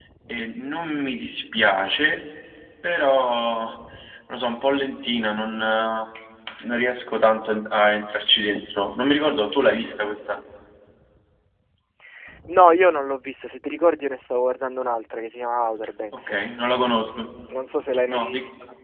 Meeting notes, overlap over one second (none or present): none